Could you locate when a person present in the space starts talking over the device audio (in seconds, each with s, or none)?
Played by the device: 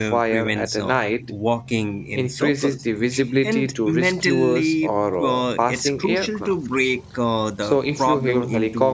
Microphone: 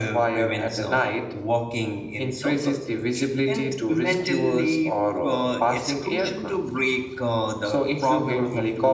none